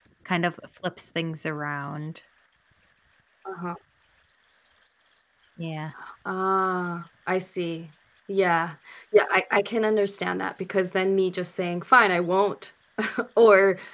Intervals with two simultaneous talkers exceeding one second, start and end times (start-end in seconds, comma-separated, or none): none